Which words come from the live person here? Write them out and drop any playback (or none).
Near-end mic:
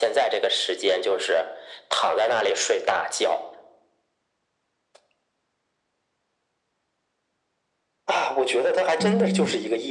嗯，